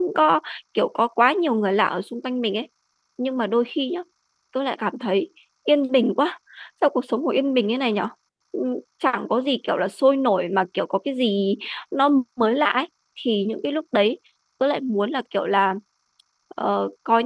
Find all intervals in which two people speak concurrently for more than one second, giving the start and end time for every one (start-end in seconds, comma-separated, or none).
none